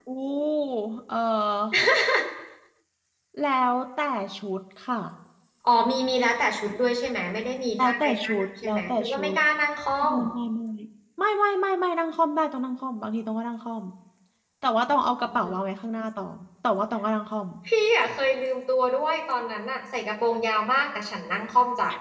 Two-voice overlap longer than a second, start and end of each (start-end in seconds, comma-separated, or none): 7.8-9.4